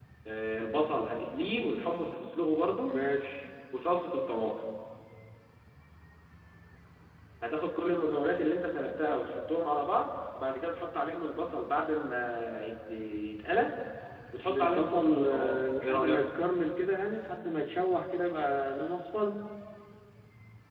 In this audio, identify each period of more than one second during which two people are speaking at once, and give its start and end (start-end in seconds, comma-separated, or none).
14.4-16.3